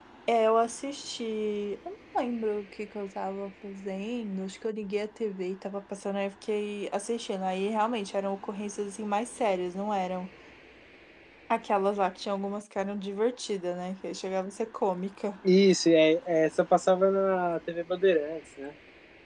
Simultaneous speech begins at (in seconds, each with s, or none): none